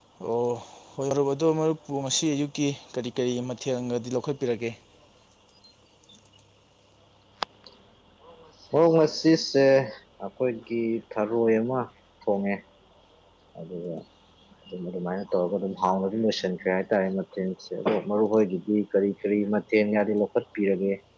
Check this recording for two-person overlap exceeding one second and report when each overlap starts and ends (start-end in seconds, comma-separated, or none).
none